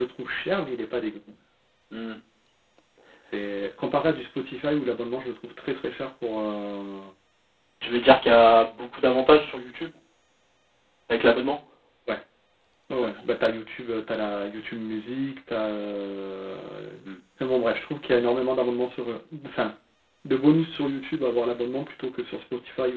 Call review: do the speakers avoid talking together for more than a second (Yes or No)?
Yes